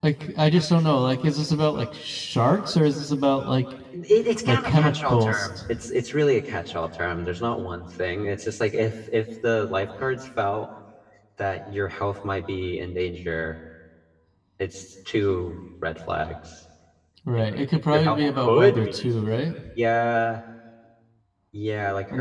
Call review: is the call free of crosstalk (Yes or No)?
No